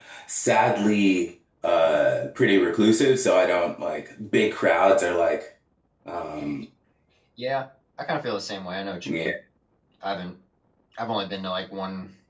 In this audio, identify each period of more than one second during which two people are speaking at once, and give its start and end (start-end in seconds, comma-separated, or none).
none